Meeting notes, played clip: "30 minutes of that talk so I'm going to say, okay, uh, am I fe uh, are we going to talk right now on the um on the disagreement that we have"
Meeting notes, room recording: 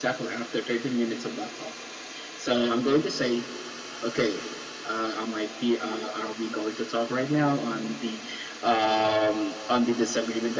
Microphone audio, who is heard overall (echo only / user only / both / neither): echo only